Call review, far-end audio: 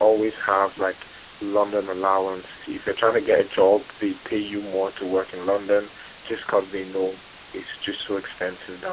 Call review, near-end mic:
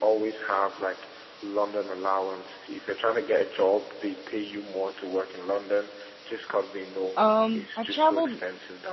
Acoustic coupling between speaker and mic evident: Yes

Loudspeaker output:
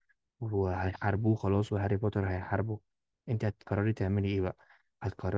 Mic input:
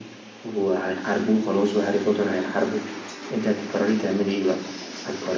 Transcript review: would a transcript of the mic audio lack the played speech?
No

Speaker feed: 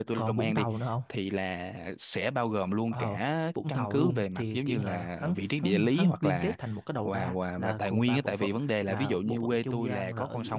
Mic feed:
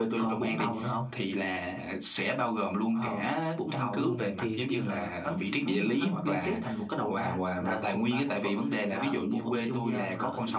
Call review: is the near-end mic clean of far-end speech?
No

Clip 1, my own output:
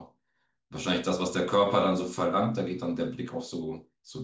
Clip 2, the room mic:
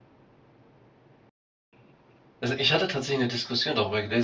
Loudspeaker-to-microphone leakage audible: No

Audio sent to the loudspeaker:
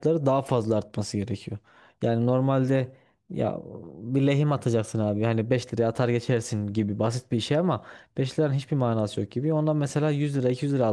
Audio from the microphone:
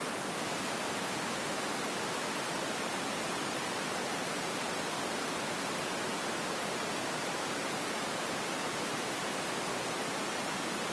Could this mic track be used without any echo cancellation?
Yes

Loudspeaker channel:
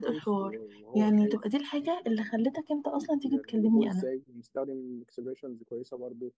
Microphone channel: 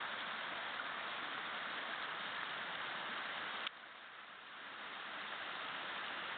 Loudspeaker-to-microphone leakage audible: No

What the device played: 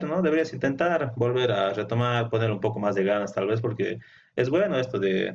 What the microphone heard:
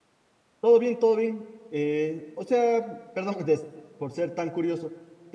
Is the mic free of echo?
Yes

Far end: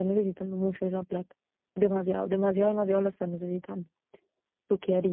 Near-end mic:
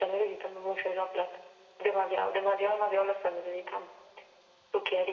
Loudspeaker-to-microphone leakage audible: Yes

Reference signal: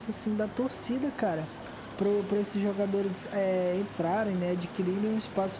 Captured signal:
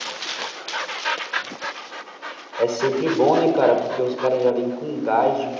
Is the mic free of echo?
Yes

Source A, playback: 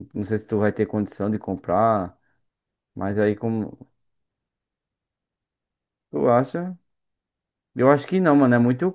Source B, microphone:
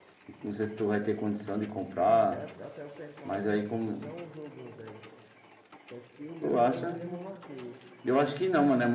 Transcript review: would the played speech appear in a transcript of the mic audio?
Yes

